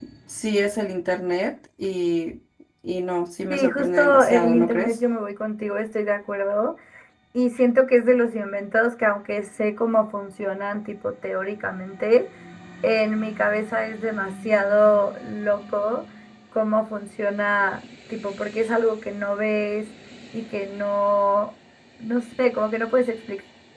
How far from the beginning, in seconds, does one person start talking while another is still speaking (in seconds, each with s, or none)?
3.5 s